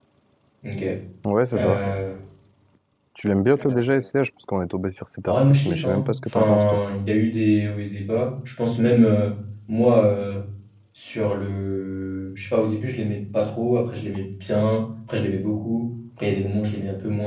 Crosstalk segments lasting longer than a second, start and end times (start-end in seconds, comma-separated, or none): 5.2-6.8